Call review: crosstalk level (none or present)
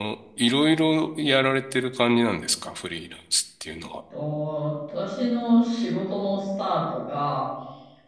none